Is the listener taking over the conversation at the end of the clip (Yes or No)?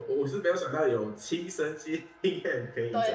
Yes